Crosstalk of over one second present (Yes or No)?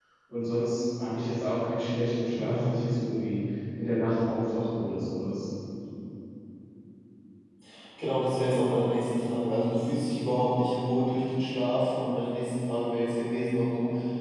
No